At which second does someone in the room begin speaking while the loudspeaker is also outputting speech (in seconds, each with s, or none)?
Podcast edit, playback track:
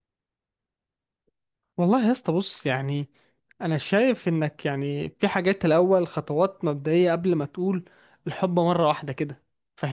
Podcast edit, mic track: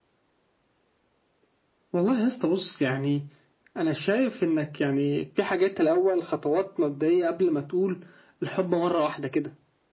none